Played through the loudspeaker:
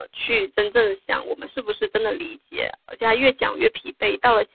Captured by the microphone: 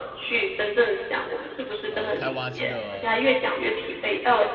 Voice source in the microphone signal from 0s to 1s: echo only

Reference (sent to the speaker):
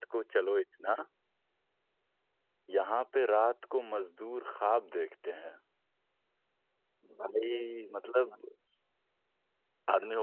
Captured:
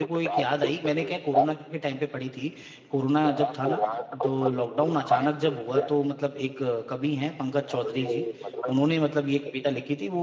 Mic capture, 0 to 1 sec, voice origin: both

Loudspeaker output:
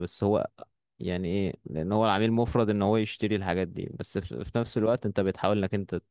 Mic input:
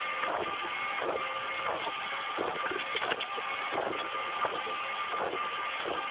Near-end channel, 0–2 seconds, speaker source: neither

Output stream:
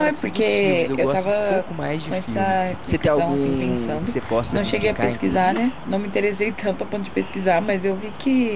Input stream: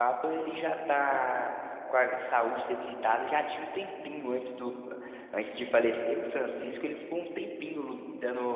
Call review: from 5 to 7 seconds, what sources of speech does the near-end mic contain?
user only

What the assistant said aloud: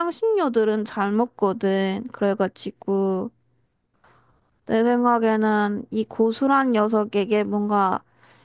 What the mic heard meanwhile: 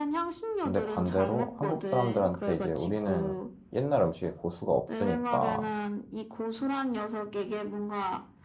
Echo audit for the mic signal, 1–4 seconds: both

